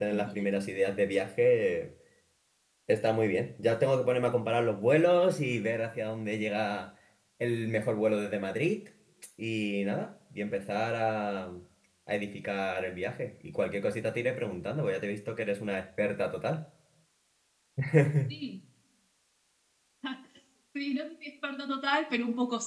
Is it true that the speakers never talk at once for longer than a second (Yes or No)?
Yes